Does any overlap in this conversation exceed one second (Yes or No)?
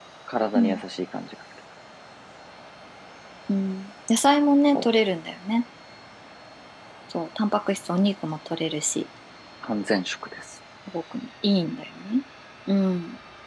No